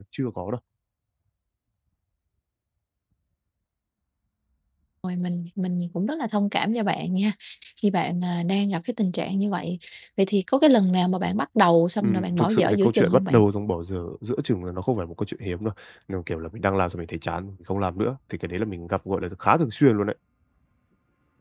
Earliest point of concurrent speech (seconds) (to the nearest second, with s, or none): 12 s